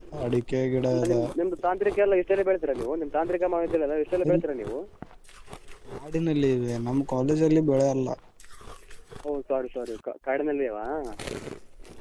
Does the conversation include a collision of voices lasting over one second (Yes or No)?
No